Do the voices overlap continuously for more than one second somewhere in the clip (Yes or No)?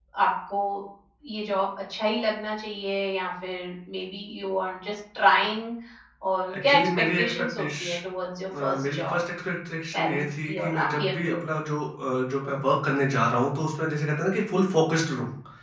Yes